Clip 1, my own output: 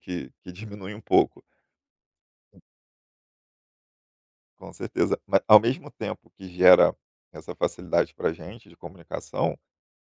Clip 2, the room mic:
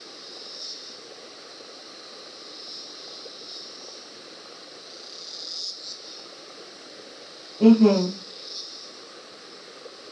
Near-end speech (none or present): present